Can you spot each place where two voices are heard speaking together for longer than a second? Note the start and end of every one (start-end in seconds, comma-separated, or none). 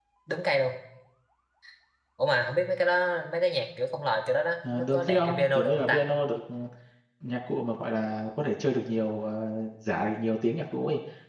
4.7-6.0